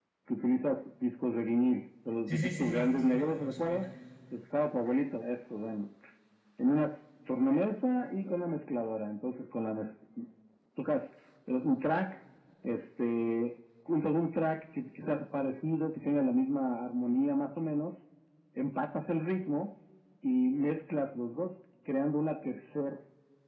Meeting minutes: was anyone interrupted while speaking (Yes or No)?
Yes